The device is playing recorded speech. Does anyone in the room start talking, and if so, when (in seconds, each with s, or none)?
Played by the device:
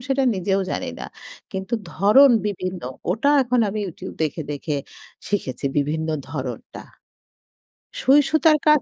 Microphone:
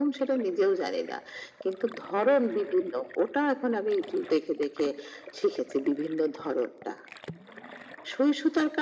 none